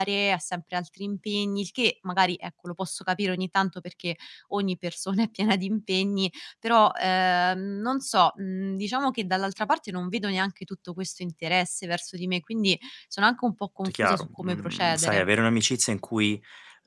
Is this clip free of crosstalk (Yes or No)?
No